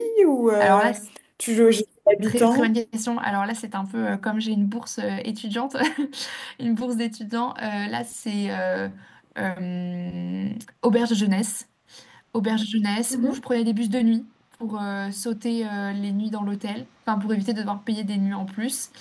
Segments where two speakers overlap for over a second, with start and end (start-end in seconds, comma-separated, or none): none